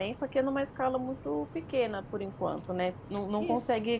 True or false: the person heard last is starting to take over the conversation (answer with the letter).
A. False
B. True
A